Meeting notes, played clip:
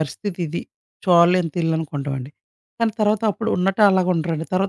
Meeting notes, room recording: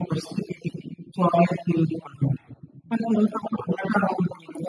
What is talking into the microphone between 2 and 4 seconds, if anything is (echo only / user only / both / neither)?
echo only